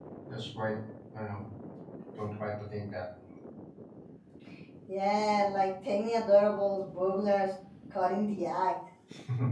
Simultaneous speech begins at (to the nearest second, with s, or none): none